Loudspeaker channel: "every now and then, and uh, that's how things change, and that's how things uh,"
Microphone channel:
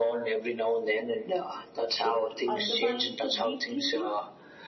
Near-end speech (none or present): present